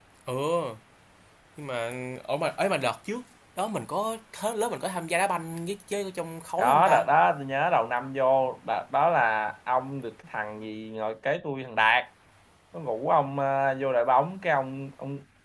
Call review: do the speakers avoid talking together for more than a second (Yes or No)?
Yes